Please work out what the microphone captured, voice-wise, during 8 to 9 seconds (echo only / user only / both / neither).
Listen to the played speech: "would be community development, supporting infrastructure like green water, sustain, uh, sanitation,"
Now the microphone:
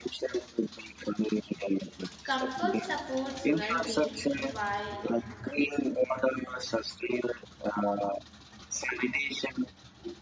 echo only